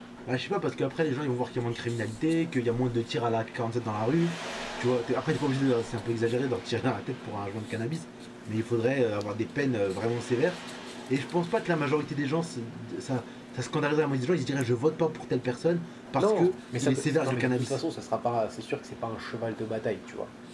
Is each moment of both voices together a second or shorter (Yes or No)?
No